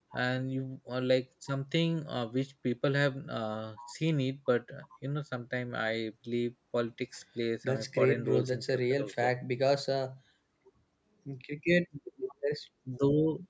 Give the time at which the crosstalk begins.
7.6 s

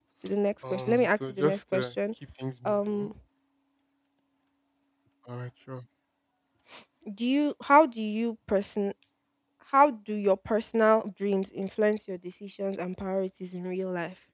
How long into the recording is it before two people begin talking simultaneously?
0.7 s

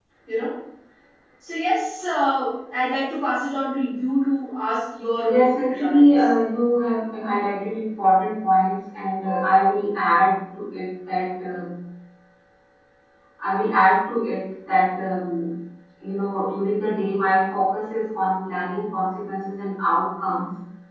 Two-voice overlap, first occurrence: 5.2 s

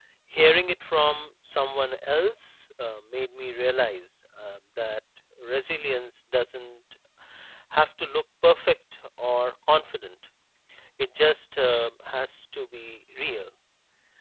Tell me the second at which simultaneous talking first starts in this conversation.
none

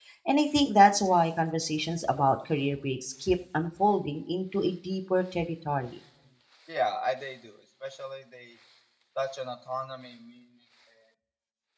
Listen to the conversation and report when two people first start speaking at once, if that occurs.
none

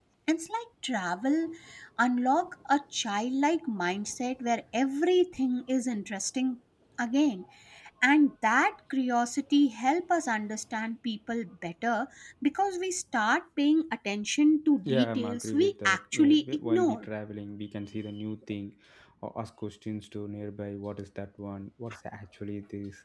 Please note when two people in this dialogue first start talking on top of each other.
14.8 s

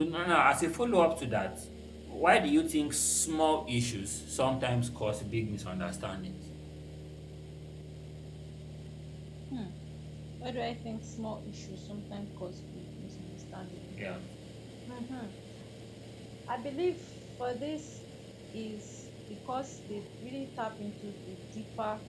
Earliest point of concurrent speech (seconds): none

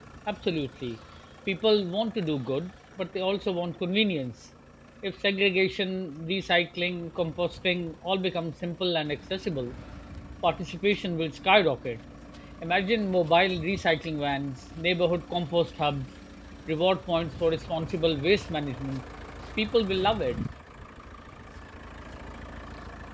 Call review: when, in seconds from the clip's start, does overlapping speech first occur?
none

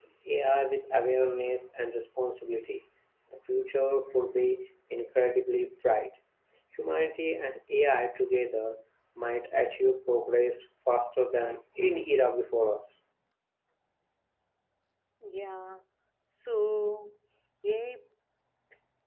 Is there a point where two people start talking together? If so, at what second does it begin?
none

